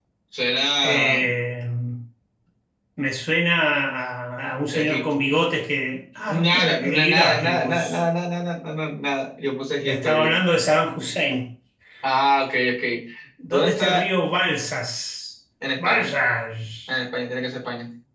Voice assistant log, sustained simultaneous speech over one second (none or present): present